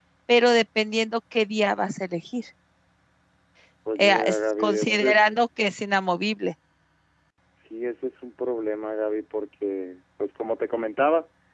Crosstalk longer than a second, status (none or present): present